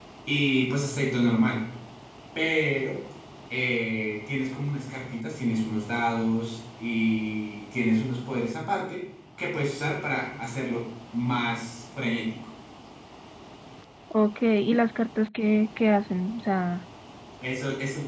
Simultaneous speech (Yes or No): No